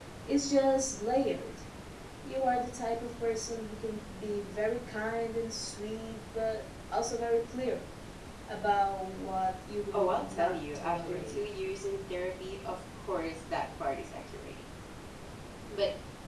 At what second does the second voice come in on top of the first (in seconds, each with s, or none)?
9.9 s